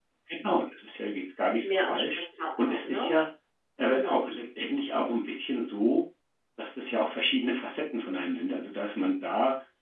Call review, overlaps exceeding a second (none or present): none